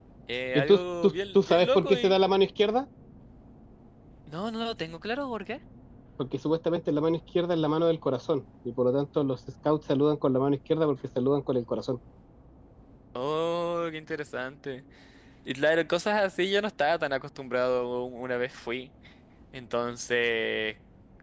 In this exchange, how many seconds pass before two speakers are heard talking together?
1 s

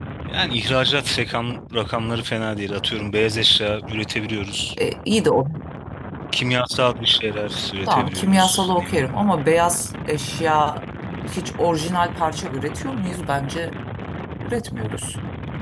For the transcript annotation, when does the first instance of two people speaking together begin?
8 s

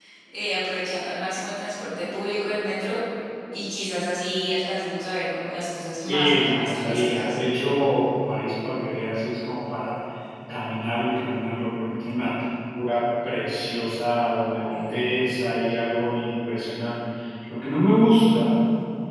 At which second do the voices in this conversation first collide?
6 s

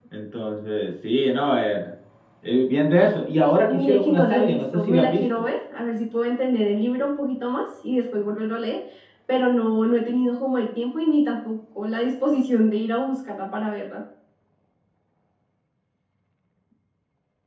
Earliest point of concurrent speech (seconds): 3 s

